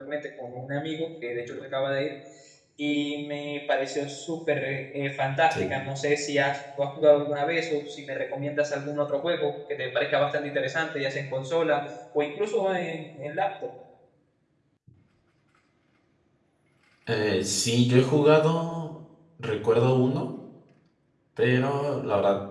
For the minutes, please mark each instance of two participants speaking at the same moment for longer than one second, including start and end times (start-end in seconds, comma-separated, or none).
none